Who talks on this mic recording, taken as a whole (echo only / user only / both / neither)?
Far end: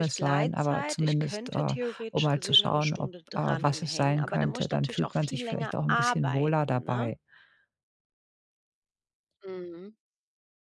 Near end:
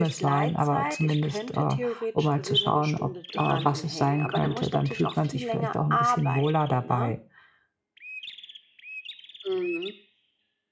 echo only